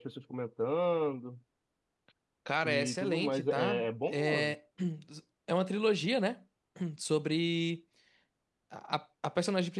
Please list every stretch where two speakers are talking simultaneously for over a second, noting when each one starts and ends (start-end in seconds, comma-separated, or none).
2.6-4.6